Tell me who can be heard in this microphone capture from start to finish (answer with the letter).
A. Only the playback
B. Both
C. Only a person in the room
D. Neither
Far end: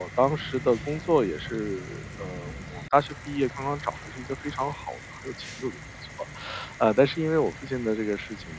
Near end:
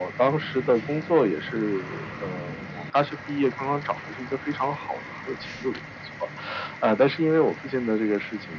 A